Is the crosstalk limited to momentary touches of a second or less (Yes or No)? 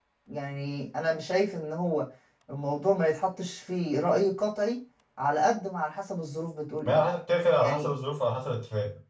Yes